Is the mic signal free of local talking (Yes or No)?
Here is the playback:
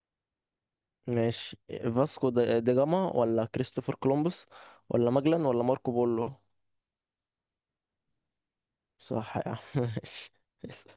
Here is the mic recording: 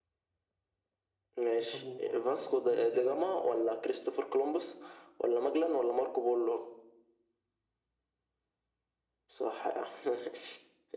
No